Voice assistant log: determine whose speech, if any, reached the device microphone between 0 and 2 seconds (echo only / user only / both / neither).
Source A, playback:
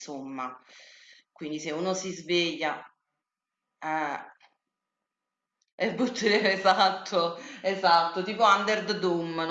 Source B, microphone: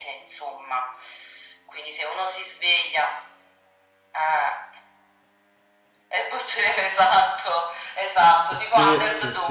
echo only